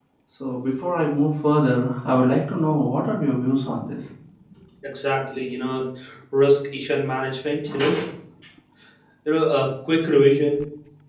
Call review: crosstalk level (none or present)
none